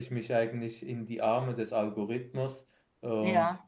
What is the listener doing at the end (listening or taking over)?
listening